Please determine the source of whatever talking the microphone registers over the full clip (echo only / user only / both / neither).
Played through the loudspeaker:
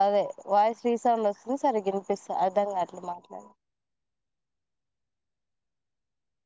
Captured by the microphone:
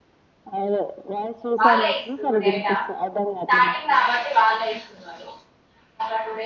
both